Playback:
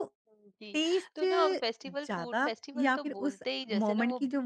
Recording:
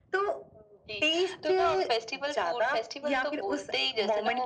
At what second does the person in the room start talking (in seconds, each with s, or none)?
none